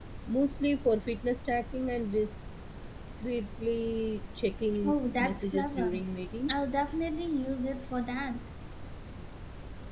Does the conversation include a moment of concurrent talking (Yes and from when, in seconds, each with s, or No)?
Yes, from 4.8 s